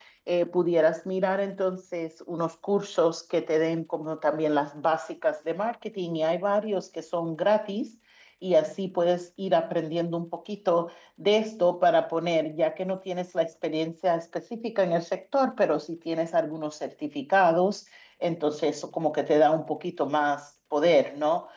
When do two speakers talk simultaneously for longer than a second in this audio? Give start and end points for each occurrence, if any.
none

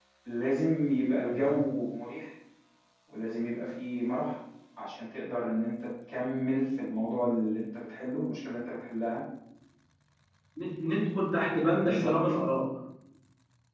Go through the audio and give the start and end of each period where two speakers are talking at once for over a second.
none

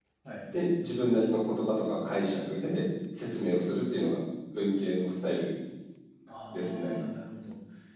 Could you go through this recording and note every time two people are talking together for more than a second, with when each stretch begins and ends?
none

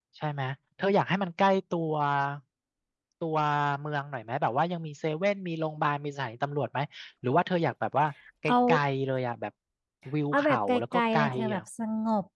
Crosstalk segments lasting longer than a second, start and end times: 10.3-11.6

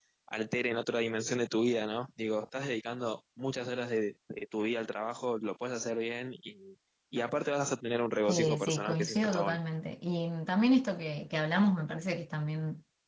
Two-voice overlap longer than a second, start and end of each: 8.3-9.6

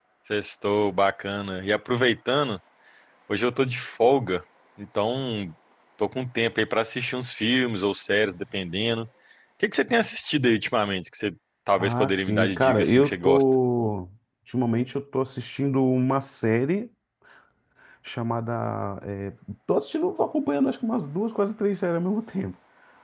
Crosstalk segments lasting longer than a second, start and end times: 11.7-13.4

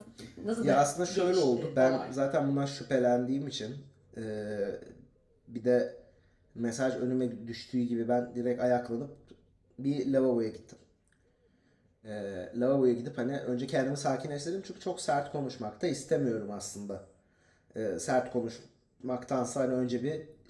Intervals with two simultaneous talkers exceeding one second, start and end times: 0.6-2.1

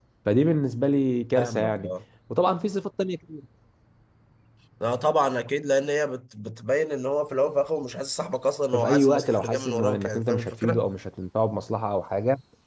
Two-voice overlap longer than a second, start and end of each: 8.7-10.8

